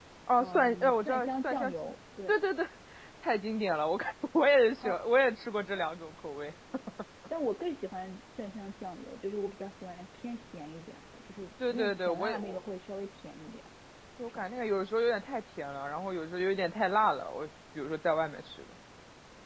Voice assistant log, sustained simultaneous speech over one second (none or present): present